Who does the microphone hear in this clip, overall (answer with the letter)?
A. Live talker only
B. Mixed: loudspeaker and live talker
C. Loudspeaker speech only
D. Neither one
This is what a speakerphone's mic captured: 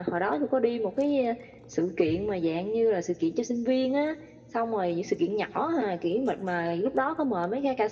C